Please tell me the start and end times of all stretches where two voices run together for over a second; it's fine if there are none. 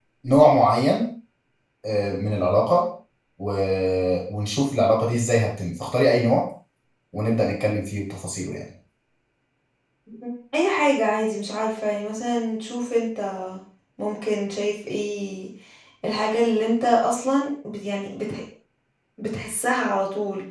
none

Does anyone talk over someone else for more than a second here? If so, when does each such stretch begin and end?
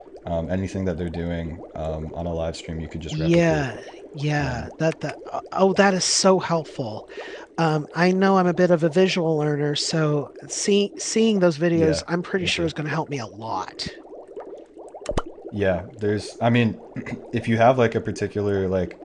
none

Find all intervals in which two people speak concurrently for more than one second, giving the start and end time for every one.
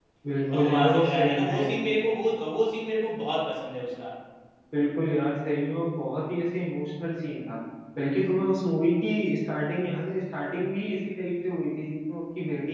0.5-1.8

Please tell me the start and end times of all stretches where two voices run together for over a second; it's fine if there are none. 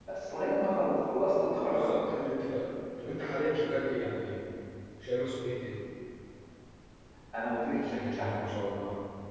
none

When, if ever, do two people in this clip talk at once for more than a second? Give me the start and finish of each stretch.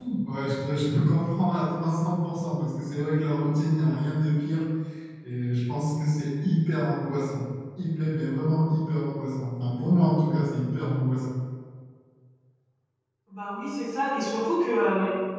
none

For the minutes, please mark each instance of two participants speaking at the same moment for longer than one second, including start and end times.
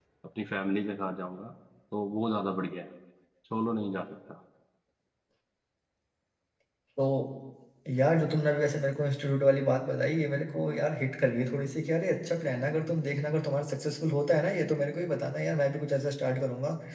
none

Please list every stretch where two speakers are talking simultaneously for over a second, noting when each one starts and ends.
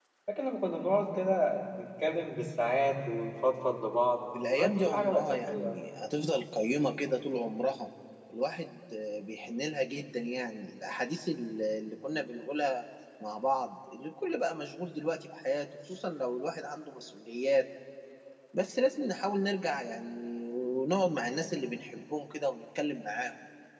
4.5-5.8

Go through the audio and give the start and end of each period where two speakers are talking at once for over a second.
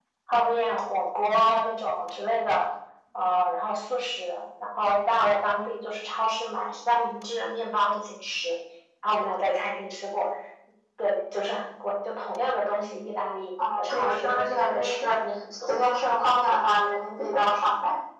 13.8-15.2

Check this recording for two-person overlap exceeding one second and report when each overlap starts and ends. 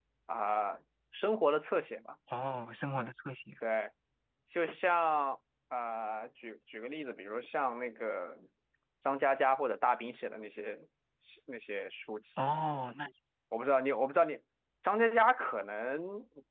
none

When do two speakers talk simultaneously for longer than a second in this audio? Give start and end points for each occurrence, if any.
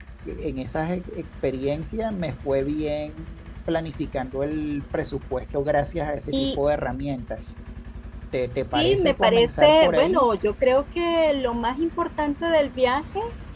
8.7-10.2

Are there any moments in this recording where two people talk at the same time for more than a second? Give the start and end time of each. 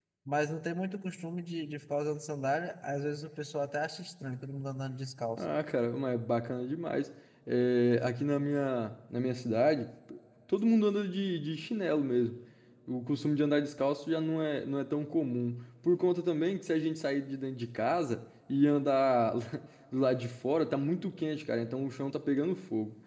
none

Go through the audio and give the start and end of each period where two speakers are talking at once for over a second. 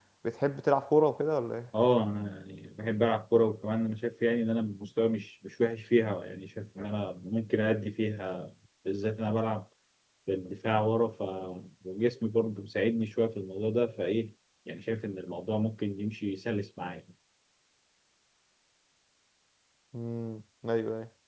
none

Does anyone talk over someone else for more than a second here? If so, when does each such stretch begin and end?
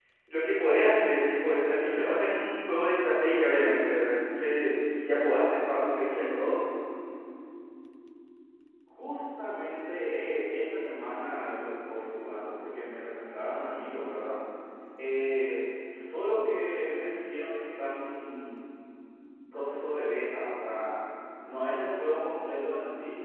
none

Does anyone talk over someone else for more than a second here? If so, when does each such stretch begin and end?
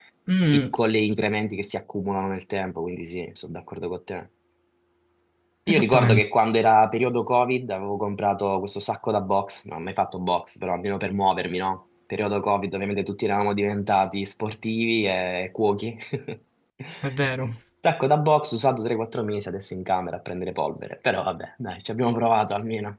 none

